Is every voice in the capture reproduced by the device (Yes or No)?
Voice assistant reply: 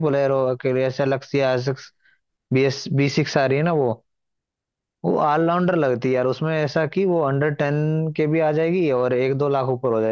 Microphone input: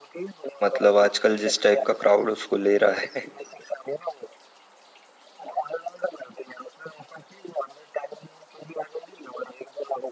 No